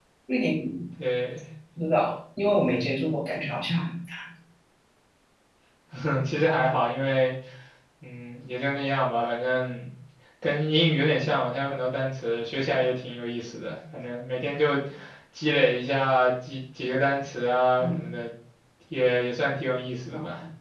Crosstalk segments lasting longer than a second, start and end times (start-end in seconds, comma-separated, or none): none